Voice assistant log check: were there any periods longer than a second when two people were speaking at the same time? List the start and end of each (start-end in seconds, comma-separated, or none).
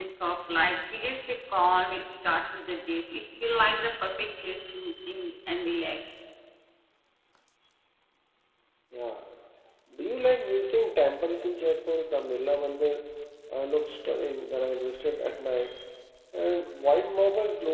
none